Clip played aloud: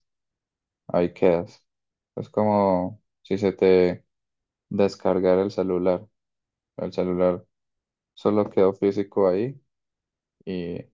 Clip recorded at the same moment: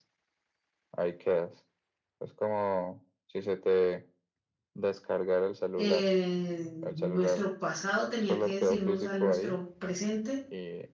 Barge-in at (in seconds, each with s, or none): 5.8 s